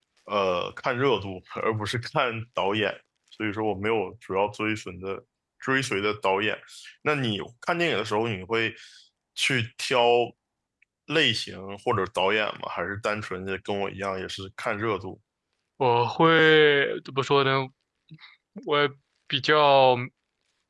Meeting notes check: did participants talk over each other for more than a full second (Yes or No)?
No